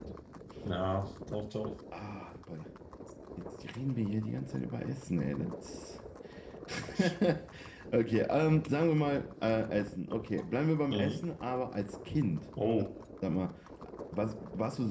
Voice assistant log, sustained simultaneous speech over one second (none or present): none